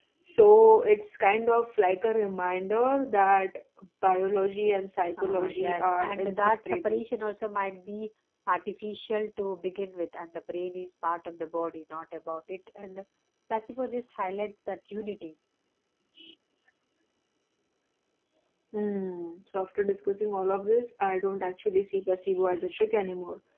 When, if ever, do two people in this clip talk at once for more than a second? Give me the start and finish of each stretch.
5.2-7.0

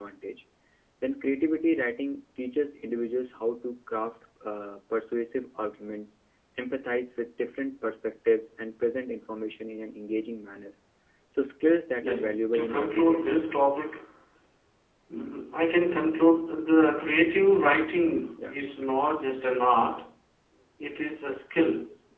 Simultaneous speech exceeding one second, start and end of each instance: 12.0-13.4

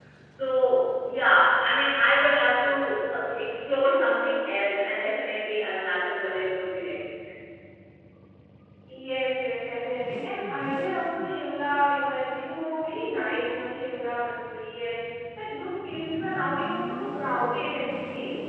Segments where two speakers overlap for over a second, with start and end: none

